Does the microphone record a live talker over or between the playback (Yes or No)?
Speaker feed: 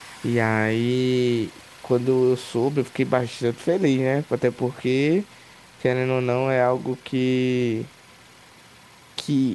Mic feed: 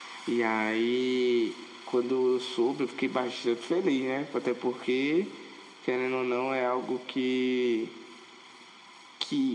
No